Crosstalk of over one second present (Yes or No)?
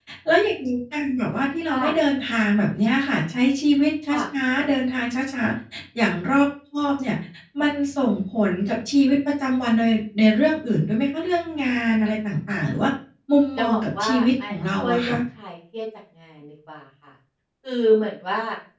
Yes